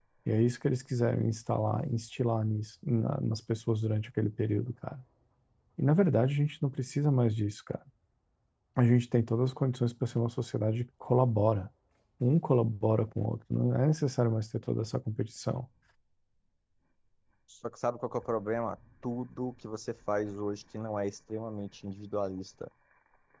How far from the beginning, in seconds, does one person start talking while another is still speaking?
none

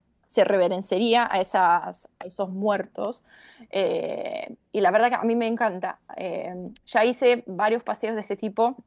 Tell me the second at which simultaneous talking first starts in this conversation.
none

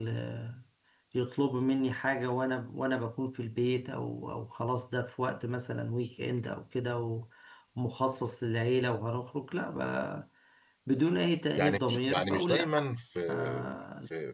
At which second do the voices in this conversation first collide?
11.6 s

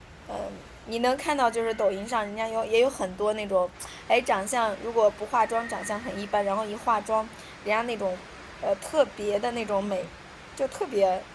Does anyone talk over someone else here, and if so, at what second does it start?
none

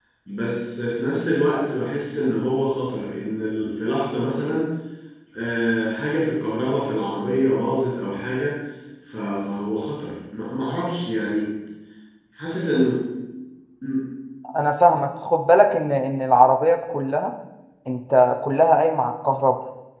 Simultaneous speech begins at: none

